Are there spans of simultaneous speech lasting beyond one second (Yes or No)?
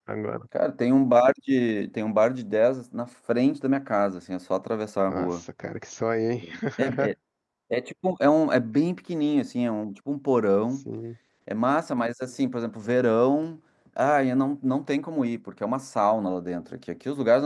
No